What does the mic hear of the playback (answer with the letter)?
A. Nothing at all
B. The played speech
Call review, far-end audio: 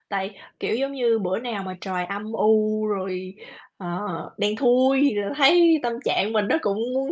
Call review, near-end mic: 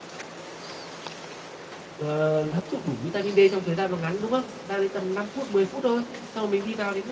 A